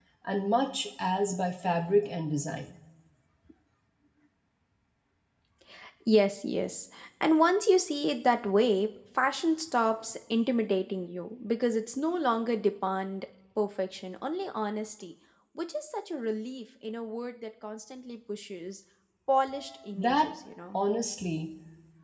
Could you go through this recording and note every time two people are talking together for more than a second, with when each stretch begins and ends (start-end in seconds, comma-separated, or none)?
none